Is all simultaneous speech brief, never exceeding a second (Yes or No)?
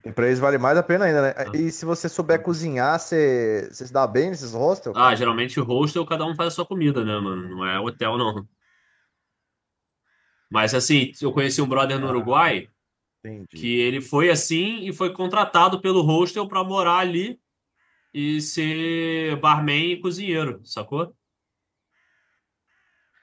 Yes